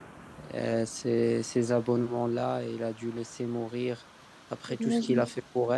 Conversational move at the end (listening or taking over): listening